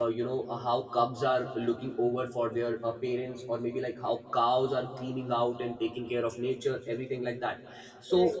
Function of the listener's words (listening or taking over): listening